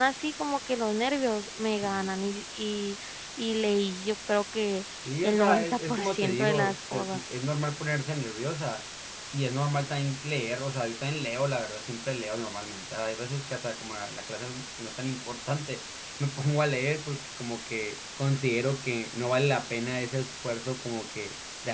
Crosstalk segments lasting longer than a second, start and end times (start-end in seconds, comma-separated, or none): 5.2-7.2